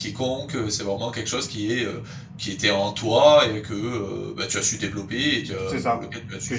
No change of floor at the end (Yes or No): No